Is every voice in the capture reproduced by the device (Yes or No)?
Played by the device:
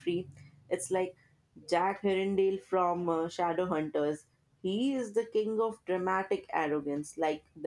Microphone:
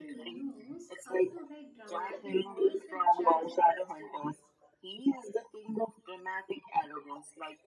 No